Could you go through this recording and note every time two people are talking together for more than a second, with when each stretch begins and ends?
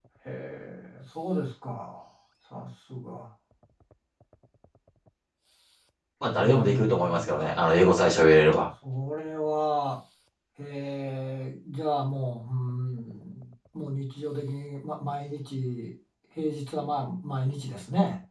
6.3-7.6

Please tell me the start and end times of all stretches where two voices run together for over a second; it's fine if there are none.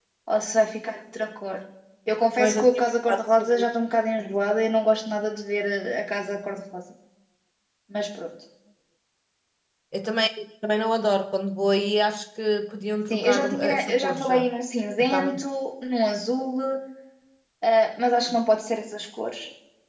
2.4-3.6, 13.1-14.5

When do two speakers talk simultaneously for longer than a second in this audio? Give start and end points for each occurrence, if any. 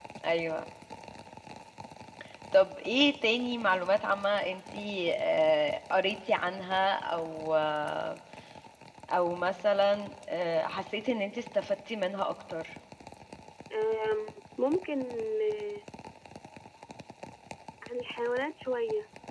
none

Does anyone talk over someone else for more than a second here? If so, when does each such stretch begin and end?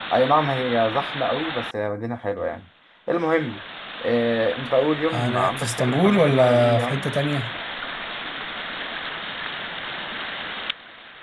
5.1-7.0

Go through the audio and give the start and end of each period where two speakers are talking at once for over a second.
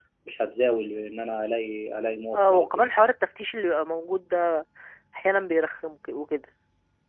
none

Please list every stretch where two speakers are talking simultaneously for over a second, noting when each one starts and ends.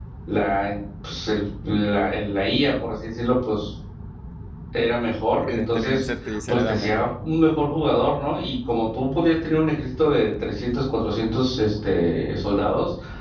5.4-7.1

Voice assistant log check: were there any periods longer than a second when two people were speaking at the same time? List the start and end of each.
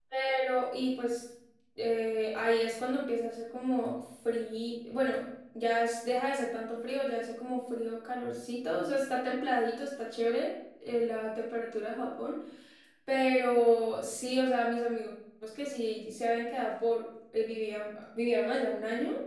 none

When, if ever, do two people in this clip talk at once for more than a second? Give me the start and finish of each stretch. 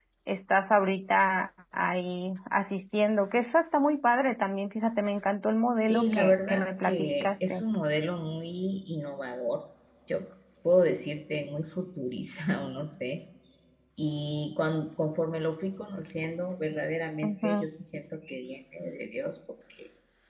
5.8-7.6

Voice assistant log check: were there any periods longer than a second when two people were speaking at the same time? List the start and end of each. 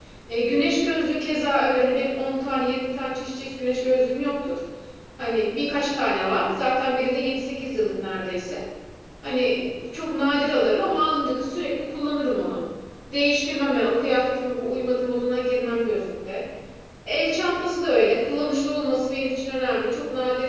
none

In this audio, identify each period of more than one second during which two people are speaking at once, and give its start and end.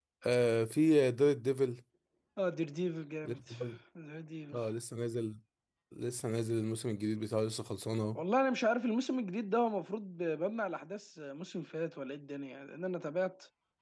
none

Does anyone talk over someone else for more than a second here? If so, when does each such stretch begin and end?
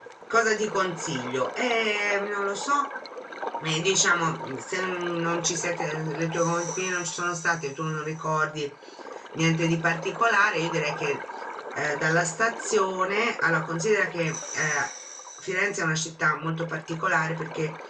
none

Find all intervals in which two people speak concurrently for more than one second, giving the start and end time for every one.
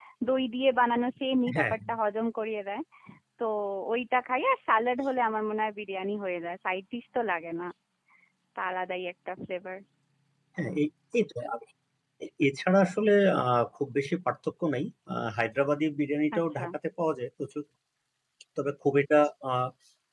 none

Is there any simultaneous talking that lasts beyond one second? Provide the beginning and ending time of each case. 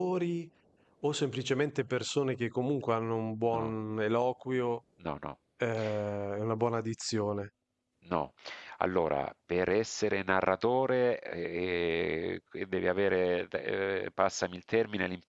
none

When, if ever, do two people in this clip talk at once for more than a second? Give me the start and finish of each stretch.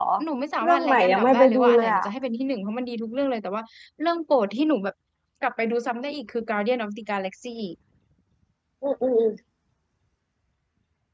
0.6-2.0

